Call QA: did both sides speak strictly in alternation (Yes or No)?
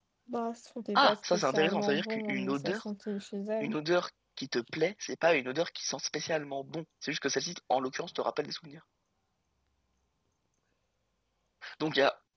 No